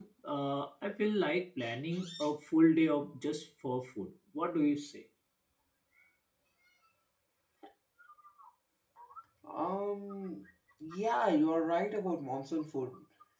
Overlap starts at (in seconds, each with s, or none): none